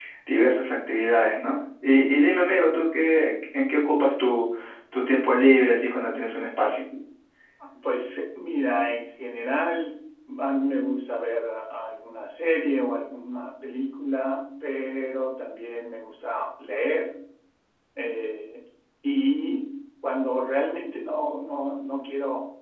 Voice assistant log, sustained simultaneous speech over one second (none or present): none